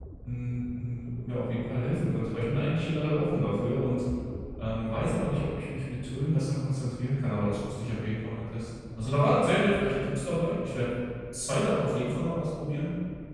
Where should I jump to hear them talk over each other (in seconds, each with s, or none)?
none